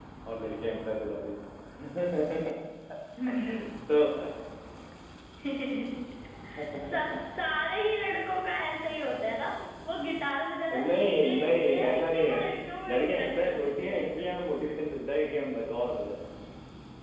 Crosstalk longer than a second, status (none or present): present